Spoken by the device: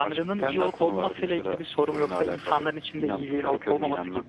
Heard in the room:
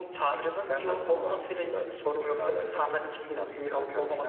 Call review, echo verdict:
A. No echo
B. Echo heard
B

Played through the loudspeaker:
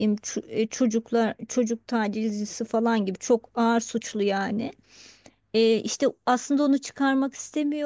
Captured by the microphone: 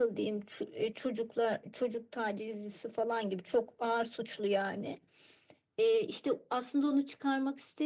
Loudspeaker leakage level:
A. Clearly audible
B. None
A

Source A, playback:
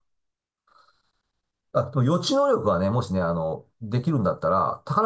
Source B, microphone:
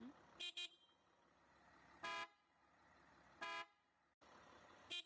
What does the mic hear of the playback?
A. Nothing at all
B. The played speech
A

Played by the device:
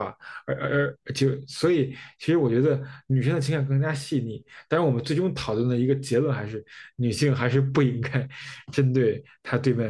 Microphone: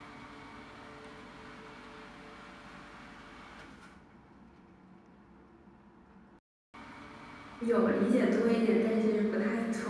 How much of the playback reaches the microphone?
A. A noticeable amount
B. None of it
B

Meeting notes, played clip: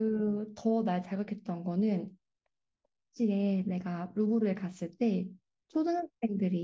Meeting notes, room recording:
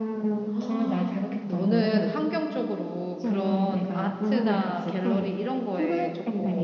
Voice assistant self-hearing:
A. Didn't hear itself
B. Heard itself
B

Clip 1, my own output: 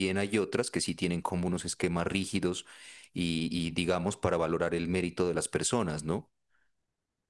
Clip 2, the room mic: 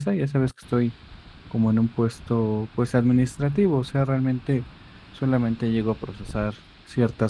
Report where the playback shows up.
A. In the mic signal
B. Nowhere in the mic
B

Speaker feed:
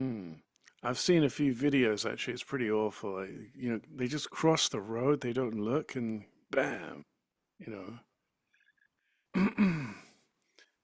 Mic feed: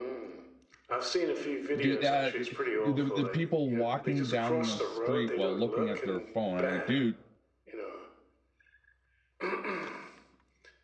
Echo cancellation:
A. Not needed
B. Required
B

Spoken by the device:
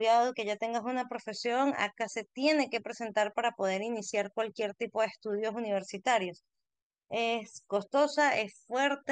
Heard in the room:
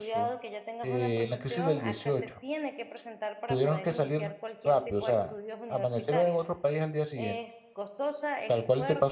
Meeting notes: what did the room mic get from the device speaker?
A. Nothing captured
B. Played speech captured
B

